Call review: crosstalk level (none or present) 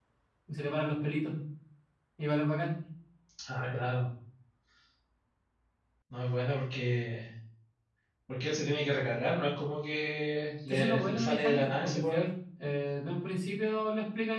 present